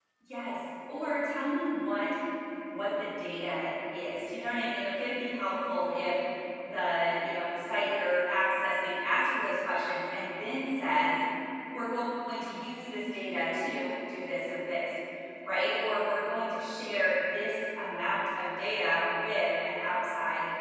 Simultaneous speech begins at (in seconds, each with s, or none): none